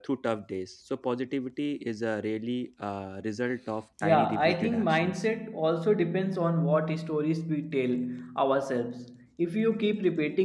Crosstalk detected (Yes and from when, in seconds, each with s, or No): Yes, from 4.0 s